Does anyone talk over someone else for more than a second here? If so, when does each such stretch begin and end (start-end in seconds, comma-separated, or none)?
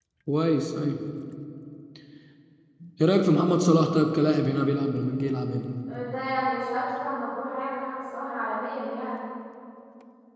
none